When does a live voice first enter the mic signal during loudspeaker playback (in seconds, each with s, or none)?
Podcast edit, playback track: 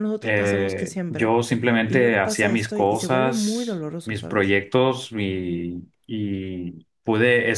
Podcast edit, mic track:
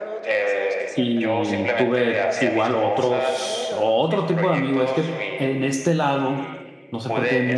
0.9 s